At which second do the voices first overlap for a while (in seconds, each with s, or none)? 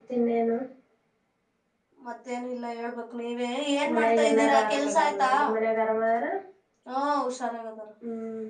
3.8 s